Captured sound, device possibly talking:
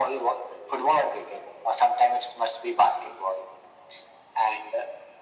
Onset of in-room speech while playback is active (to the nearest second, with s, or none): none